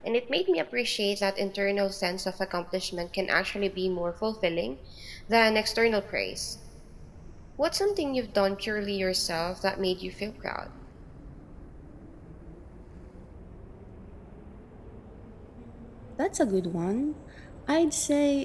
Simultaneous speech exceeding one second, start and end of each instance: none

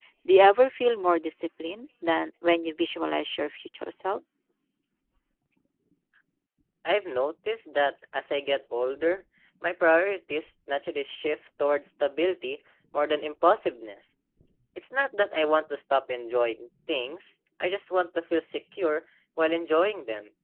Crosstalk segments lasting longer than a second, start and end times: none

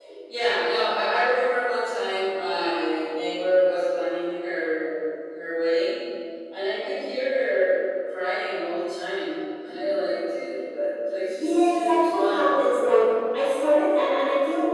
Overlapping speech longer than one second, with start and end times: 11.3-12.6

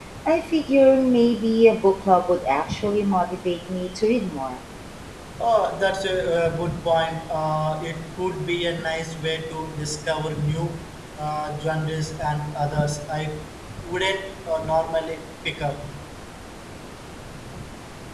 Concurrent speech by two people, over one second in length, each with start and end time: none

